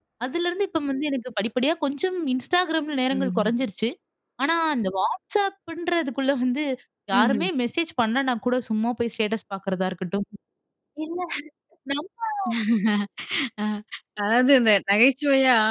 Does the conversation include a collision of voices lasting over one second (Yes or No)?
No